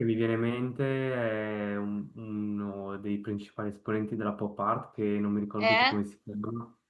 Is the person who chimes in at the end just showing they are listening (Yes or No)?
Yes